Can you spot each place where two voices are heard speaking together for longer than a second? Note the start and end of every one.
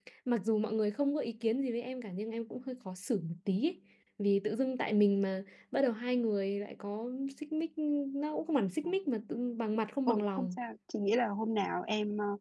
none

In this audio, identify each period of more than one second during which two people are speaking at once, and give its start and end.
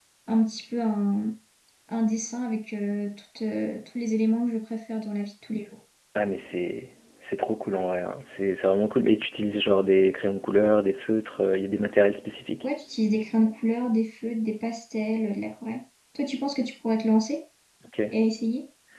none

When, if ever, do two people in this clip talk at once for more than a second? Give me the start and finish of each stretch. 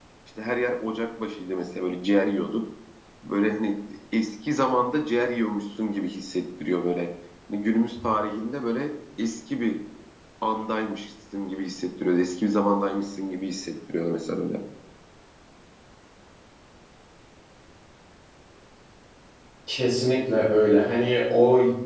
none

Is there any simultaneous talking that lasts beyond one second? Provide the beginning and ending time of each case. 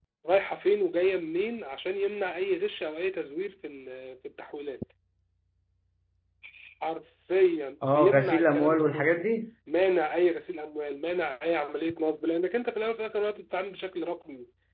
7.8-9.2

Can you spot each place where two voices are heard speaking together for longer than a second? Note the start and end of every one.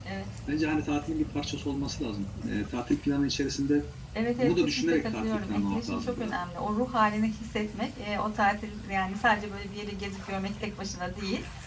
4.4-6.3

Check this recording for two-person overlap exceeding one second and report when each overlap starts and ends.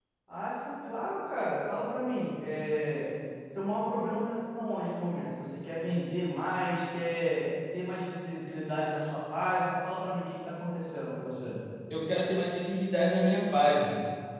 none

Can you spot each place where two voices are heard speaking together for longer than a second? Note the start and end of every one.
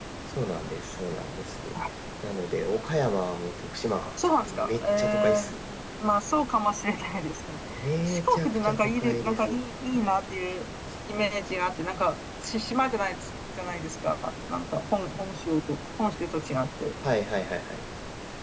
4.2-5.6, 8.1-9.6

